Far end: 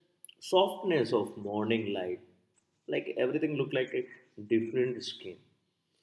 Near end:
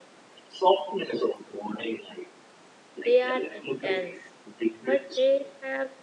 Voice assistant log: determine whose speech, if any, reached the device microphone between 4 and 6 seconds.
both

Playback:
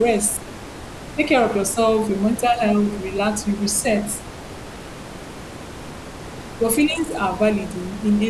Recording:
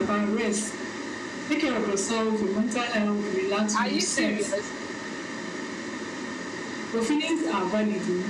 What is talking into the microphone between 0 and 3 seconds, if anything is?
echo only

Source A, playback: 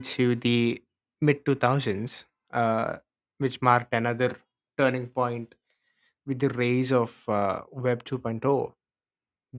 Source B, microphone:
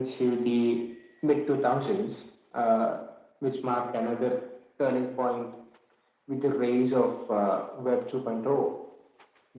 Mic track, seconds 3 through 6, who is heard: echo only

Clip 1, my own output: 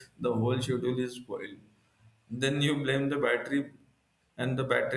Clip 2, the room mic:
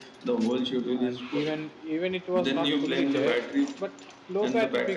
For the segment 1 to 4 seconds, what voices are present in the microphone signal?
both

